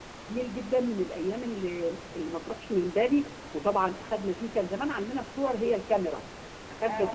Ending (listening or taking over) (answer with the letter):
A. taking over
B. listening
A